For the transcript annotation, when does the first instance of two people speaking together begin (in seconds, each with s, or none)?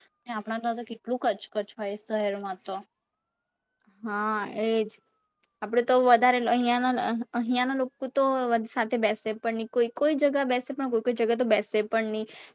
none